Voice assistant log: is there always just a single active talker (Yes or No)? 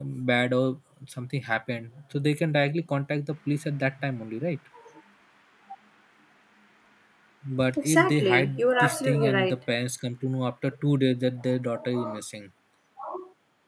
No